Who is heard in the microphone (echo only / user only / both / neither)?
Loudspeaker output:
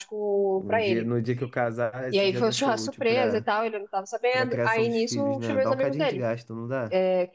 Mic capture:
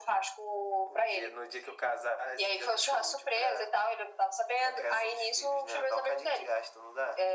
echo only